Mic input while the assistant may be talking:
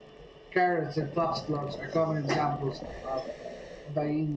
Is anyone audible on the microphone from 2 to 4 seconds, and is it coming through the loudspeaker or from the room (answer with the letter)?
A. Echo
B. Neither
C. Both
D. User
A